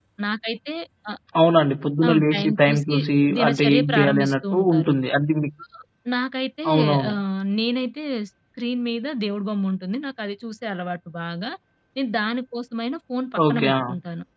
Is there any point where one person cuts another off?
Yes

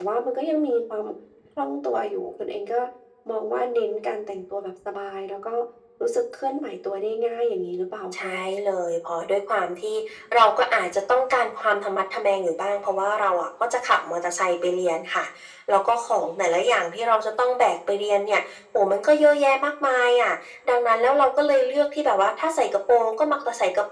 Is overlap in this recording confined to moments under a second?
Yes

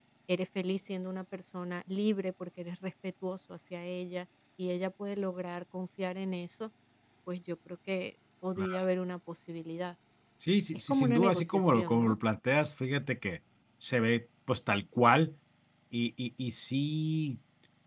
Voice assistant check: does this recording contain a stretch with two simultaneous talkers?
Yes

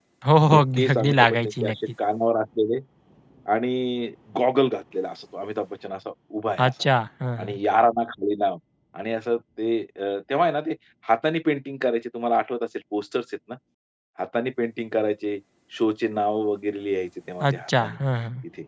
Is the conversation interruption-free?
No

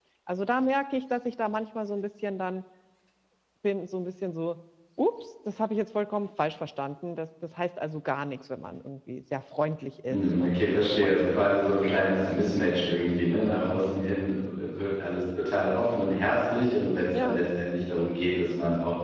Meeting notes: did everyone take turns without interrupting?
No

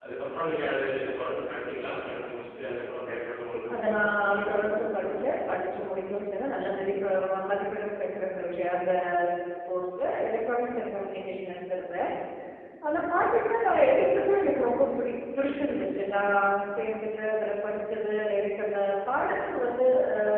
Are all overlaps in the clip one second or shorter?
No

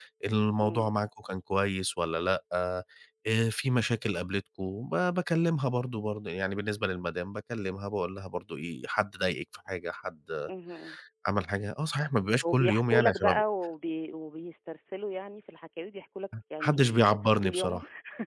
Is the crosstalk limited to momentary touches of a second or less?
No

